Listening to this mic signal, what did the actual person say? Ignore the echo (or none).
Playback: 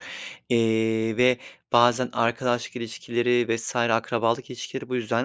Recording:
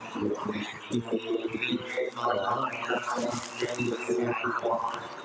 doğru.